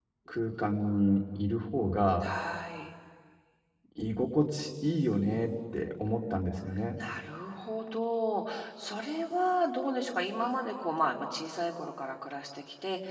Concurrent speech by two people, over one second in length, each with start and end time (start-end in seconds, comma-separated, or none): none